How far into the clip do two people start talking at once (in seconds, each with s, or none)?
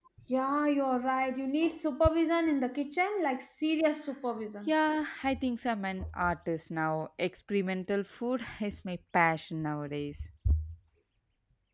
none